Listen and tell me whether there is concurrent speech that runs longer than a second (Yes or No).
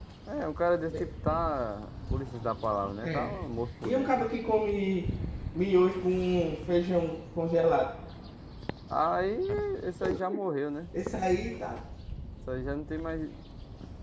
No